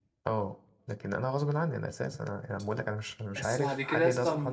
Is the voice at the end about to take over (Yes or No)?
Yes